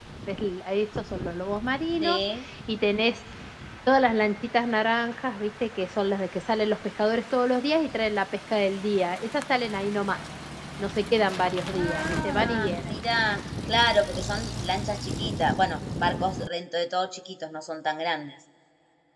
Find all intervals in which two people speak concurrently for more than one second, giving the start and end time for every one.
11.7-12.9

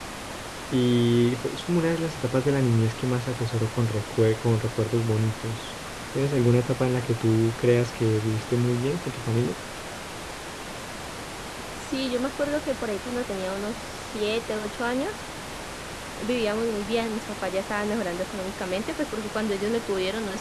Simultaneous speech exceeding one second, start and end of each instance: none

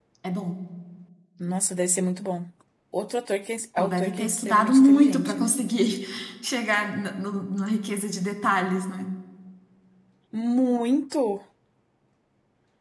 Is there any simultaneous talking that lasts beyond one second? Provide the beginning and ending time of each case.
3.8-5.5

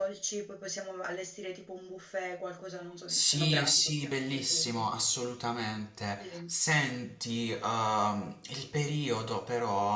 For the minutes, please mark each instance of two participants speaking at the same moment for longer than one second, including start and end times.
3.1-4.7

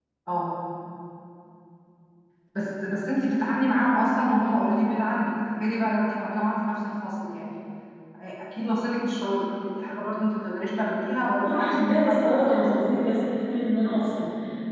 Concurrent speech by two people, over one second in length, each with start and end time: 11.4-12.9

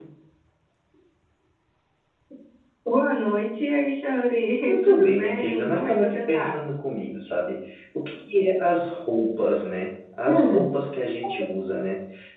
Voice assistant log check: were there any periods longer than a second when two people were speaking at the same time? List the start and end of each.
4.7-6.6

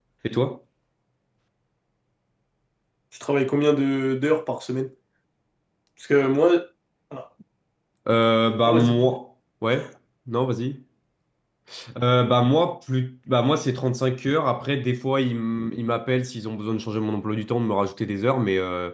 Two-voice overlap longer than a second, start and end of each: none

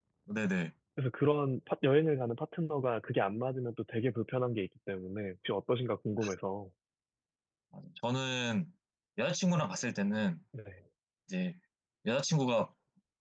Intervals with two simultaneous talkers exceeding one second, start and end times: none

